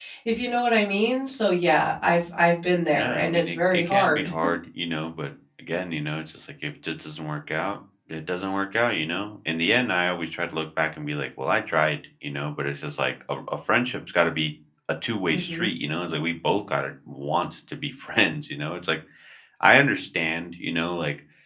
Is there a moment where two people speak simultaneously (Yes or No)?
Yes